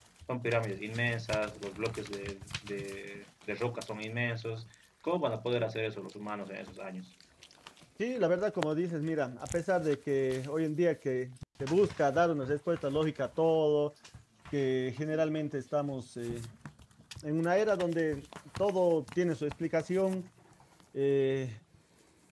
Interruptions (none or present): none